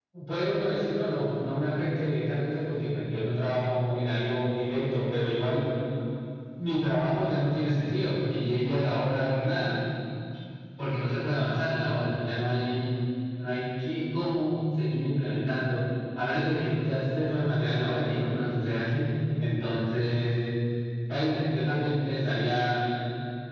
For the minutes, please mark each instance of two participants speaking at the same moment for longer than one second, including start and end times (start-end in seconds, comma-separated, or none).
none